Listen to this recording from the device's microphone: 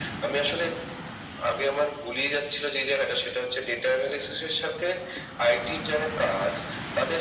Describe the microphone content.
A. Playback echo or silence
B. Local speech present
A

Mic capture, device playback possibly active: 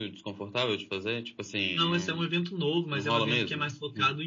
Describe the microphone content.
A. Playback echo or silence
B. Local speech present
A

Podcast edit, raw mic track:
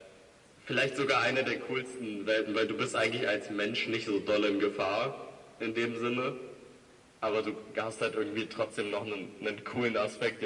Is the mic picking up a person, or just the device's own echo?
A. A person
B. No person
B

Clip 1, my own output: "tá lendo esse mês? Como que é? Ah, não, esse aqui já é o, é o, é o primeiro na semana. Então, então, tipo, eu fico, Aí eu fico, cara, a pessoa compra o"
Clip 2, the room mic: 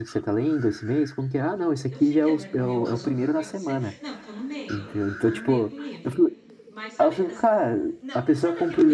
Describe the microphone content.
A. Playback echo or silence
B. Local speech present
B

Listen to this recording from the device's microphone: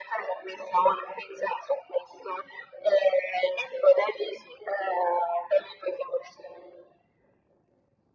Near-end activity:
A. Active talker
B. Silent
B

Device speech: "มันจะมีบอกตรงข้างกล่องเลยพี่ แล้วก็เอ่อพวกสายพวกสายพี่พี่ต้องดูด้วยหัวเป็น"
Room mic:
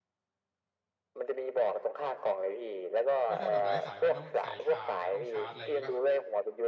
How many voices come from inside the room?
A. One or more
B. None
A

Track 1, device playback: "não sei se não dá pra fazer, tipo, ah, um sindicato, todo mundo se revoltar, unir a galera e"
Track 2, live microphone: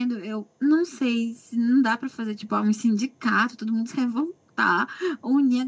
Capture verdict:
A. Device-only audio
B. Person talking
A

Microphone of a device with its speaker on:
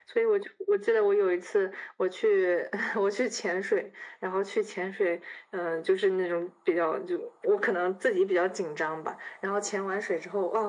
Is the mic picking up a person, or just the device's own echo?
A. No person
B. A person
A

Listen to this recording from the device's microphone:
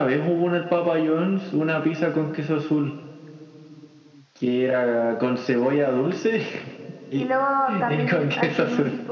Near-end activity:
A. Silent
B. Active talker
B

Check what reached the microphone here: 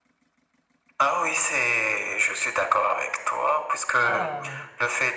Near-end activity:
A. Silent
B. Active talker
B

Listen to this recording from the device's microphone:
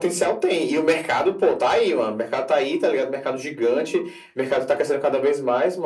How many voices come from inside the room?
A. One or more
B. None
B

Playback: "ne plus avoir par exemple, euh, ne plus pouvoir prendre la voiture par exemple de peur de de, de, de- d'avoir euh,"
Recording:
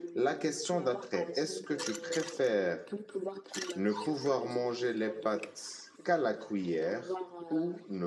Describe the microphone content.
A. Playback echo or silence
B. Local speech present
B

